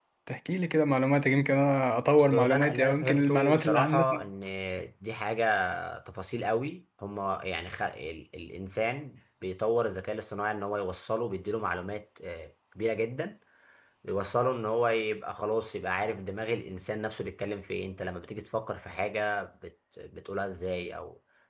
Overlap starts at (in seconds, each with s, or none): 2.3 s